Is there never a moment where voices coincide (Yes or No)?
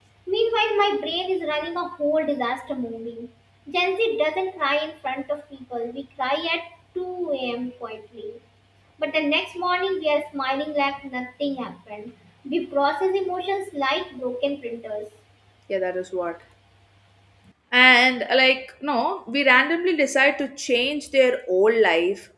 Yes